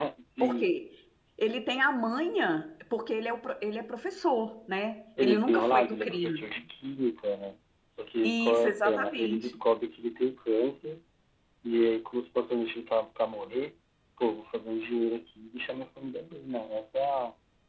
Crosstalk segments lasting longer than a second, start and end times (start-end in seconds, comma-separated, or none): 5.2-6.4, 8.2-9.6